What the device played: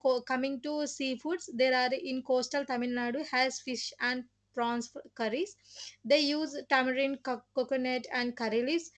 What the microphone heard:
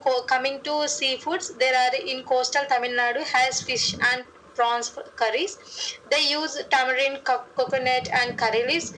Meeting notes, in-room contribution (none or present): none